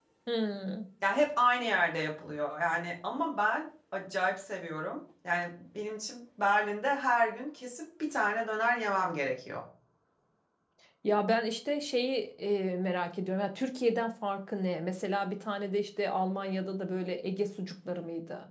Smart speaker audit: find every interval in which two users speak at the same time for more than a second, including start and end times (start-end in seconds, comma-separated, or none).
none